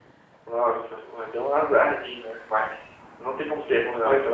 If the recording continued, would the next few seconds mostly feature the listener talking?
No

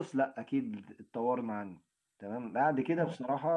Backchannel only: Yes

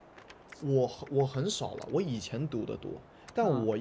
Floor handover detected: No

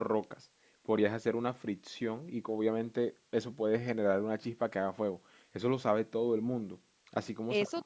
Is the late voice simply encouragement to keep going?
No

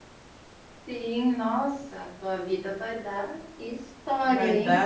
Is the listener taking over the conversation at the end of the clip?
Yes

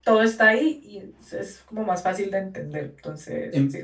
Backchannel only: No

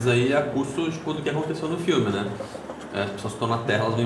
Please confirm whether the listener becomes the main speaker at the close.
No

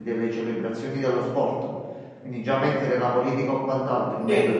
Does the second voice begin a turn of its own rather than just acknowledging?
No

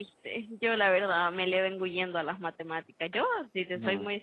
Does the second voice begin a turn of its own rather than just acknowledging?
No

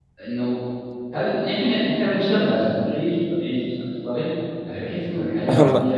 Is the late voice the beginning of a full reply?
No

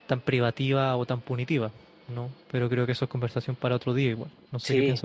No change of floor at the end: No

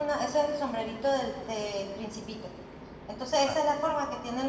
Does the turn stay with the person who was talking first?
Yes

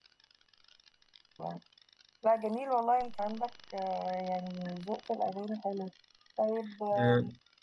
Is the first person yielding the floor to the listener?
No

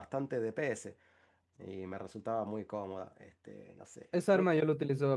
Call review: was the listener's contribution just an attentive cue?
No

